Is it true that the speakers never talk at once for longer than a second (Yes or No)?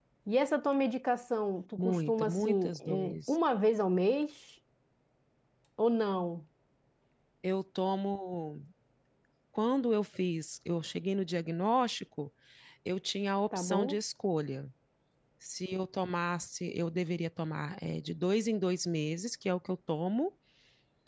No